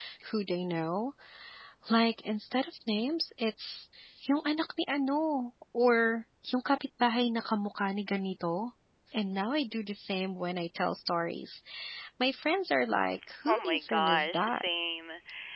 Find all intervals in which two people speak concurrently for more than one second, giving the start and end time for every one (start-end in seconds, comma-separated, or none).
13.5-14.7